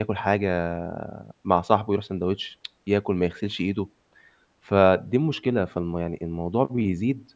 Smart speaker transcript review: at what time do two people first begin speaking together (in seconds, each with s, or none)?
none